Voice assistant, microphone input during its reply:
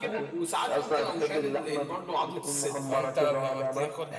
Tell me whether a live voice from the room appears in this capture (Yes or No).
Yes